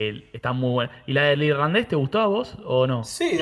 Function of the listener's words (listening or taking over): taking over